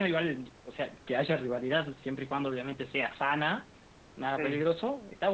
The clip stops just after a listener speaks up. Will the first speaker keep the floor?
Yes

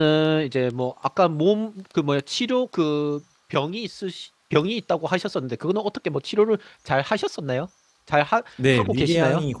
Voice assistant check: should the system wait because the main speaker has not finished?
No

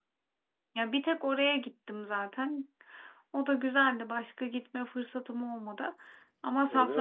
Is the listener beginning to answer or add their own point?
No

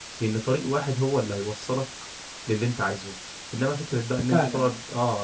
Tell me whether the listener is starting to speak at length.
No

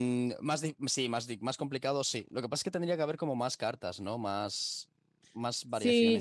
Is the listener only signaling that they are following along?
No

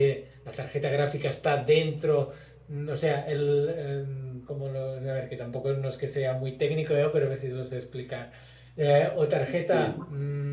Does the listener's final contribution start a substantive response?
No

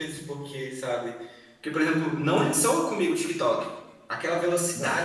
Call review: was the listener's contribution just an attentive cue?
Yes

